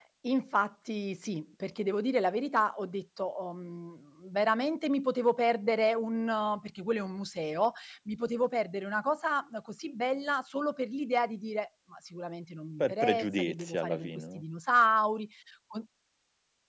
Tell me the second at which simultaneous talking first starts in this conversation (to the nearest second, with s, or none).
13 s